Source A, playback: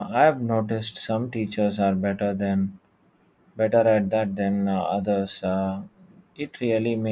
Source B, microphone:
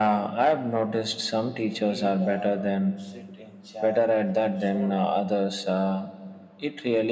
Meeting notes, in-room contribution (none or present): present